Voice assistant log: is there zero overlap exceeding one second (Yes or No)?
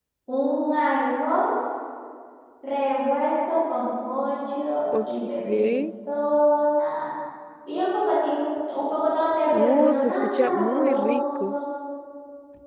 No